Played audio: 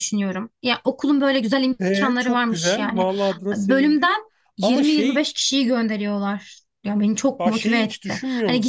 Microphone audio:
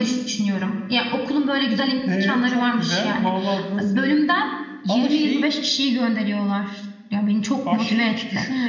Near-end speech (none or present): none